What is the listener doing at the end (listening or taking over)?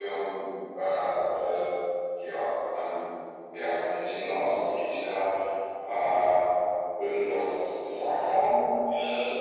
taking over